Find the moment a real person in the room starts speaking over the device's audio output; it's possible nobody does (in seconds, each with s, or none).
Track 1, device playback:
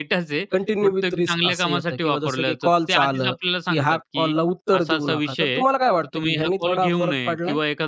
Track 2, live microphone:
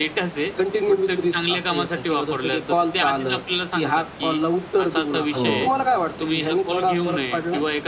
5.3 s